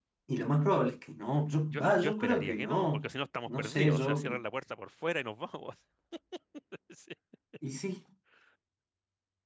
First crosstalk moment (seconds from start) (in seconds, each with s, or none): 1.7 s